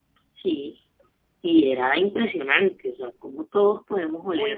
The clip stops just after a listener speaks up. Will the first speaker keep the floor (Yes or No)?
No